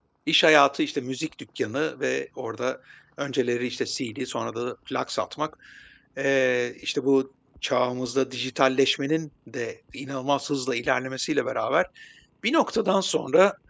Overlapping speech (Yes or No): No